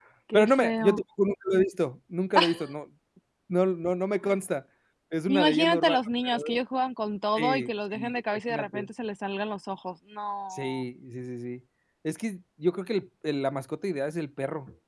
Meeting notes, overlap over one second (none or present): present